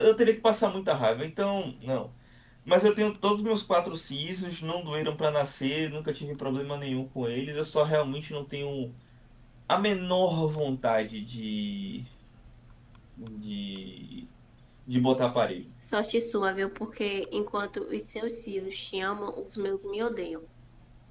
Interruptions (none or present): none